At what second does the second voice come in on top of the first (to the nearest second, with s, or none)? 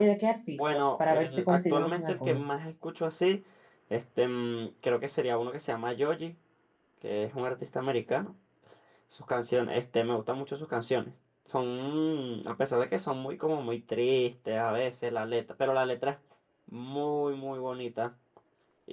1 s